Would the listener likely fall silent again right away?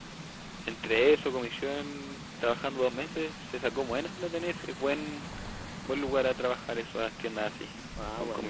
No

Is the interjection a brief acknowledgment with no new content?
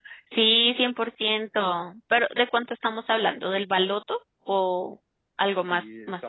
No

